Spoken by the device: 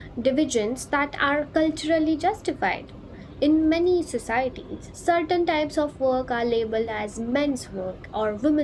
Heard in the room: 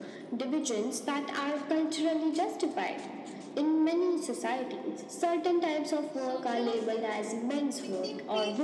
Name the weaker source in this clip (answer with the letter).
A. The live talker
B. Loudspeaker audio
A